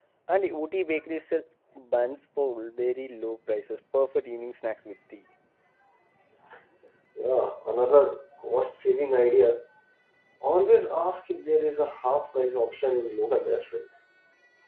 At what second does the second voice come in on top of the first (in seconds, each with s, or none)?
none